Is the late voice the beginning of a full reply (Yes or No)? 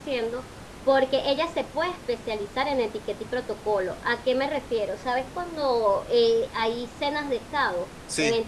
No